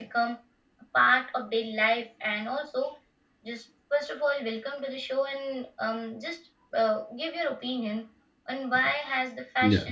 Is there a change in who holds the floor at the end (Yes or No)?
No